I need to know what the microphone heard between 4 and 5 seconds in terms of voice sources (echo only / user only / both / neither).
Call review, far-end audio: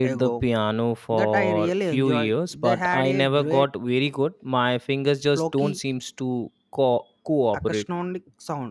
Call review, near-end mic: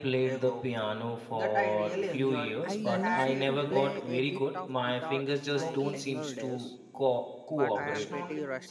both